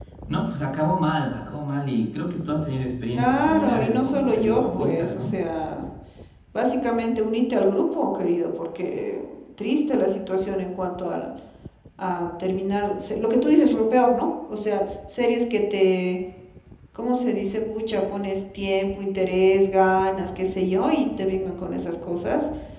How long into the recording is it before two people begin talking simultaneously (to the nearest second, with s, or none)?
3 s